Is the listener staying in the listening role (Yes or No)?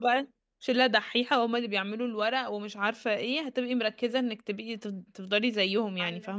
No